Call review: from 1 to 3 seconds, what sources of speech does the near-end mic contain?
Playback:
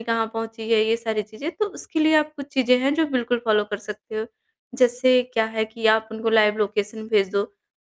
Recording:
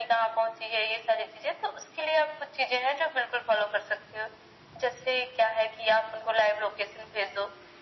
echo only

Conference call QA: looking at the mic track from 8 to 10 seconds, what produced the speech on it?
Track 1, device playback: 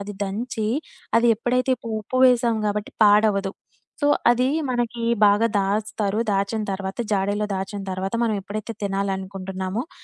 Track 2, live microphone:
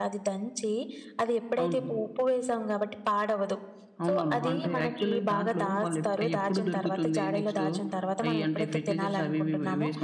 both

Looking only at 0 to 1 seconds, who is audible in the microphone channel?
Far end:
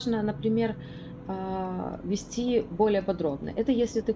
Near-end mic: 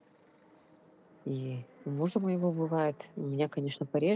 neither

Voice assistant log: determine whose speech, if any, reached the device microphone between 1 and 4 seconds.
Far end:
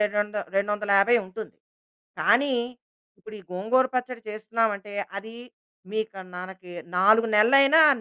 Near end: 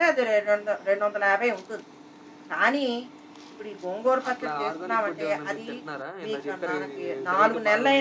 echo only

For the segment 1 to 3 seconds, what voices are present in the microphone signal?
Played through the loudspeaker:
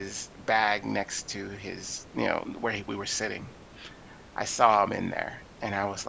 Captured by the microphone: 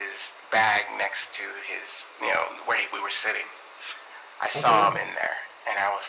echo only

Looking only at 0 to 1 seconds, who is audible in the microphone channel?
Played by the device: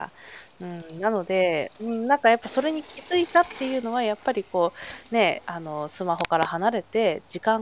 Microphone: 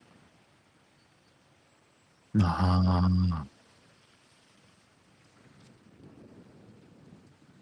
neither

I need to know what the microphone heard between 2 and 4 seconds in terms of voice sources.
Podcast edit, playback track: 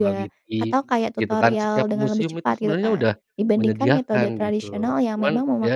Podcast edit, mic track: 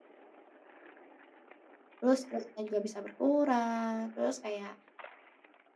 user only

